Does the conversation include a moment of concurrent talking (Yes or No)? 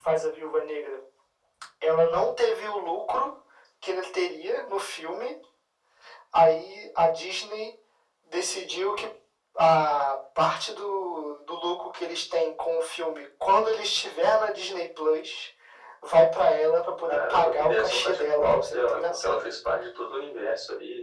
Yes